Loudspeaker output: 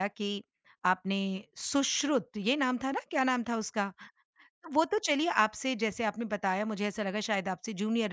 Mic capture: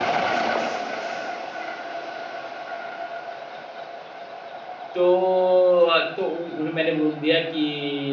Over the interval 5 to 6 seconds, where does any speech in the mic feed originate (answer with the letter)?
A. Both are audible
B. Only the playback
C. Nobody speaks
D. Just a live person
D